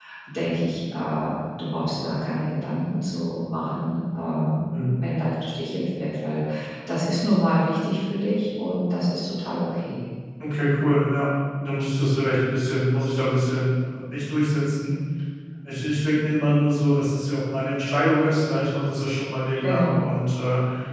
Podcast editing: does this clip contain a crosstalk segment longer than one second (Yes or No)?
No